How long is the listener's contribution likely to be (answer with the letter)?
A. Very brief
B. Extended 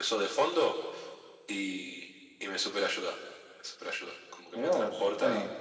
B